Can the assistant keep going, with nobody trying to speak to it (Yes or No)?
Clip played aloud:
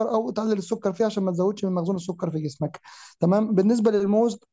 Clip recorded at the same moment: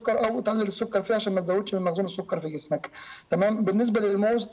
Yes